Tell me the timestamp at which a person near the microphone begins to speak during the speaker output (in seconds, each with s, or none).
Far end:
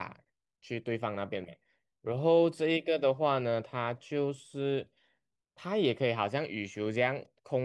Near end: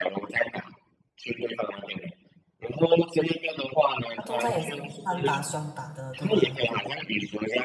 4.1 s